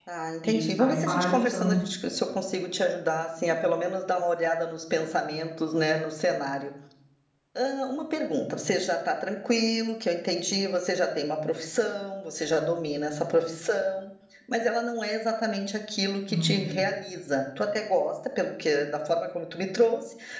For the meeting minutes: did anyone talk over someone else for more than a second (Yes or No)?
Yes